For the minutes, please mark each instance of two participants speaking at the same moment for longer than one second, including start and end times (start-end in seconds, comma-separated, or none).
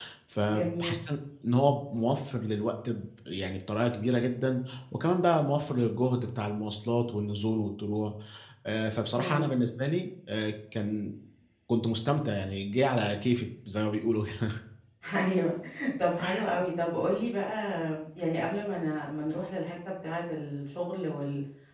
none